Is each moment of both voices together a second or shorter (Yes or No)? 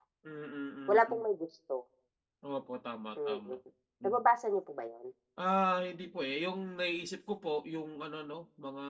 Yes